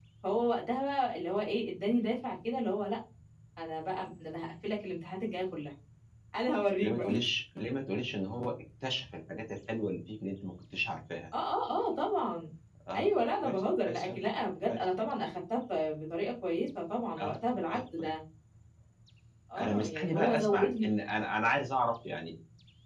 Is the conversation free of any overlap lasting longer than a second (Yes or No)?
No